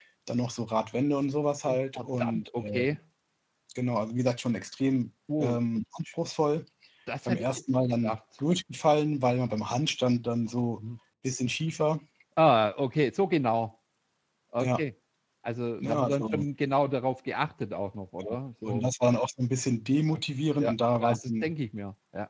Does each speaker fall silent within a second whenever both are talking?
No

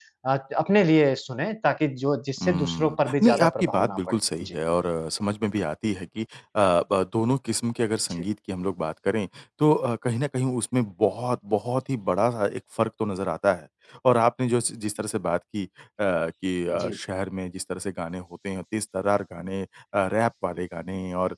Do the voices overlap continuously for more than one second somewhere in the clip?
Yes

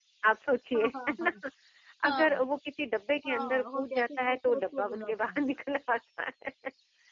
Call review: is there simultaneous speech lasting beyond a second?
Yes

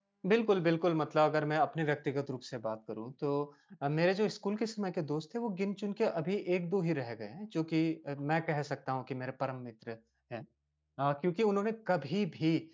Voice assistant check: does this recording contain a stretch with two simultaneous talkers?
No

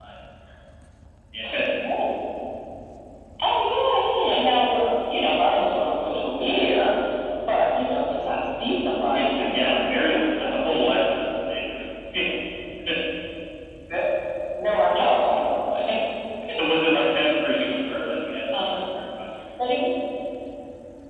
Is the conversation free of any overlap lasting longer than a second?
No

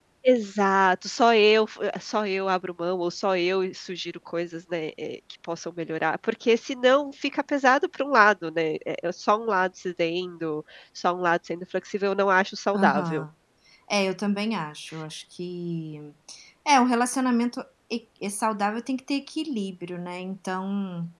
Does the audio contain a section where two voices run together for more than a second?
No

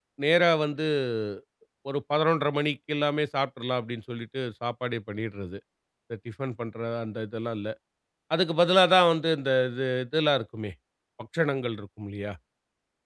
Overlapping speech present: No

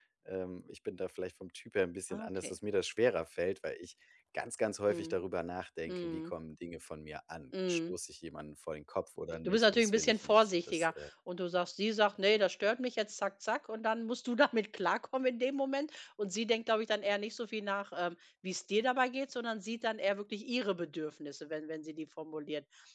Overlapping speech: Yes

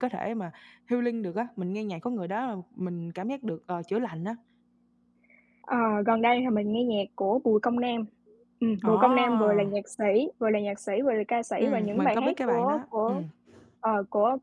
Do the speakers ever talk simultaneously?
Yes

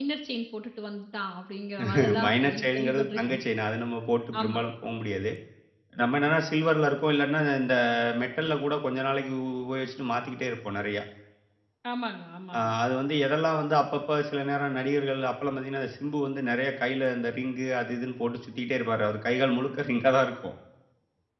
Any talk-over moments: Yes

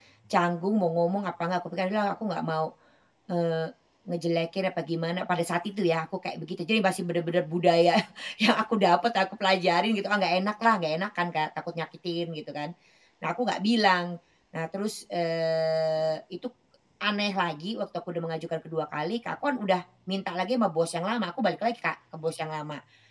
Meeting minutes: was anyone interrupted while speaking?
No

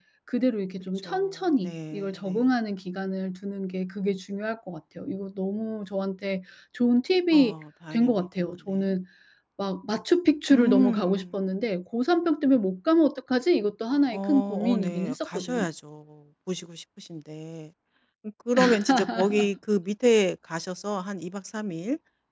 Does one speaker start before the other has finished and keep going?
Yes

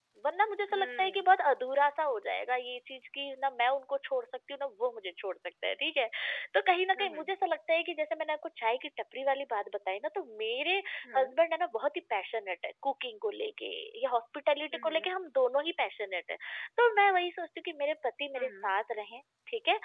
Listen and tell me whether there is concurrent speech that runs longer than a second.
No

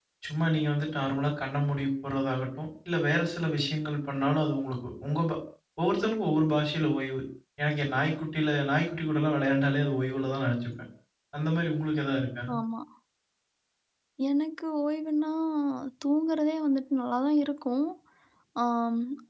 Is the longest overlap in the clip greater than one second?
No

